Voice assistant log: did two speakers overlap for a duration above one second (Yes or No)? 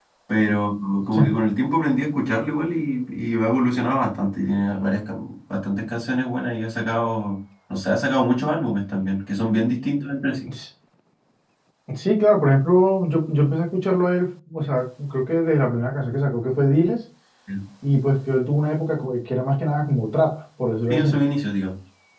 No